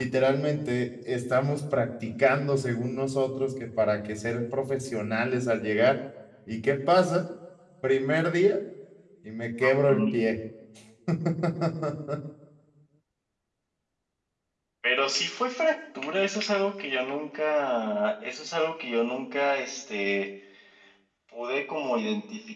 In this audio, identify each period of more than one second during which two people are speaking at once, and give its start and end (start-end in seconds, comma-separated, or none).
none